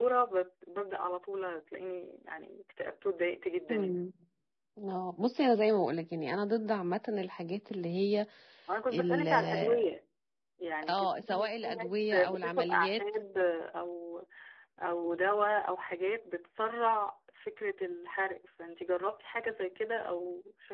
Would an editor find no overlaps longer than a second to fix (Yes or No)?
No